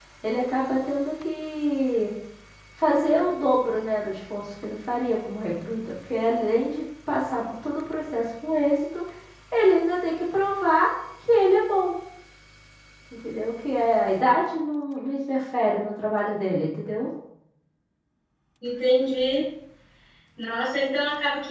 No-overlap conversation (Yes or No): Yes